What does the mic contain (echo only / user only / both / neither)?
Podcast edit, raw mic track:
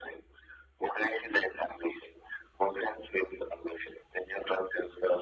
echo only